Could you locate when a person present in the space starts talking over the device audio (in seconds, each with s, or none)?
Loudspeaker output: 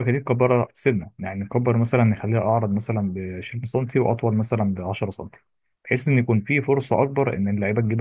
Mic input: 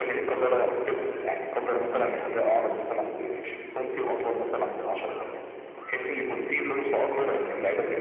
none